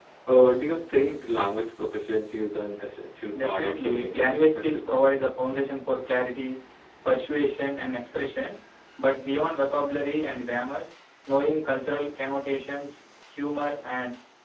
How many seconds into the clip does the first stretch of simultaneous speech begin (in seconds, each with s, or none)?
3.3 s